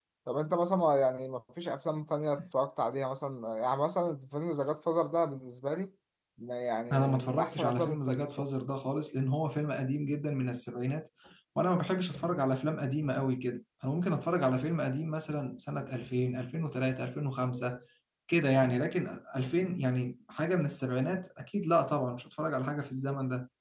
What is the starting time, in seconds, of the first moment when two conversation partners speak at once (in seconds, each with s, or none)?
6.9 s